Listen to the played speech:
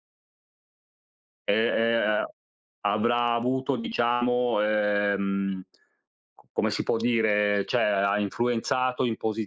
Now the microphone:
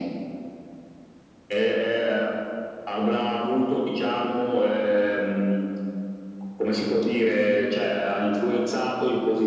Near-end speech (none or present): none